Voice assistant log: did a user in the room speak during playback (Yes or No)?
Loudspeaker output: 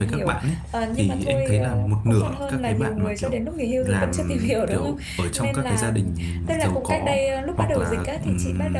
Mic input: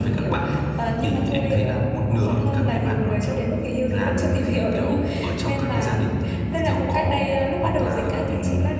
No